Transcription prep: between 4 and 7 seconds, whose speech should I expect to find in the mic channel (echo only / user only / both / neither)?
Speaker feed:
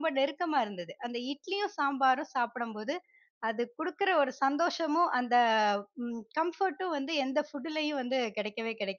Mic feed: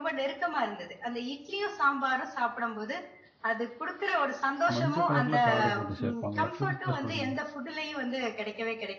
both